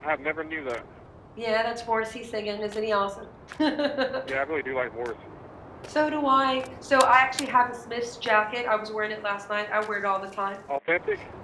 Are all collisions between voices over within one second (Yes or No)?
Yes